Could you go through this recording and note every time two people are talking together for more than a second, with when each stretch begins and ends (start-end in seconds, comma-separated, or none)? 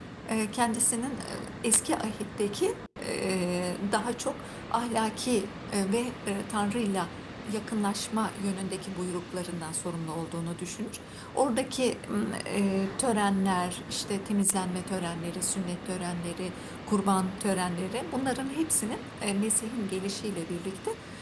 none